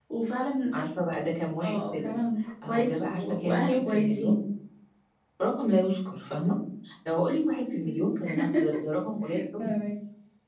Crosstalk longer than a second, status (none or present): present